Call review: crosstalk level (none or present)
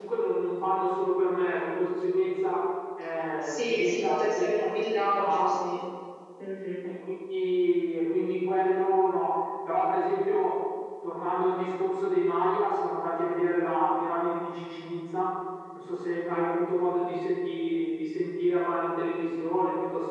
present